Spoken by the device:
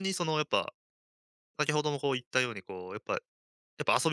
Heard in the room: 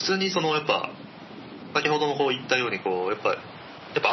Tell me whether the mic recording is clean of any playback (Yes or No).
No